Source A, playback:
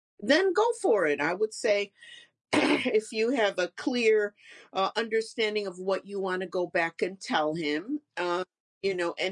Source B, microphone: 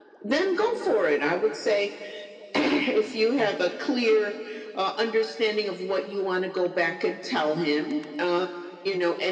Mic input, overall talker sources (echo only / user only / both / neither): both